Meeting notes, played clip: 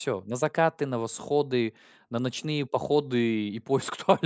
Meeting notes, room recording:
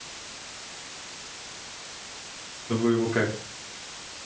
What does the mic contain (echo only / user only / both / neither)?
user only